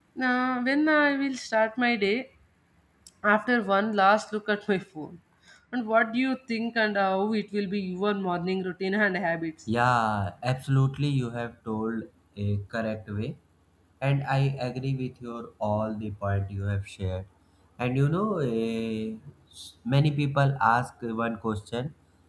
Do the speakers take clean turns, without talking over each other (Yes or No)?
Yes